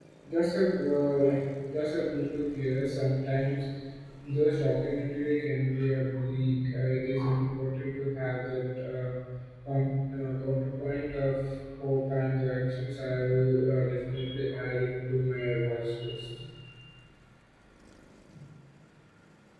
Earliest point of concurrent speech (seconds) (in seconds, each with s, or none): none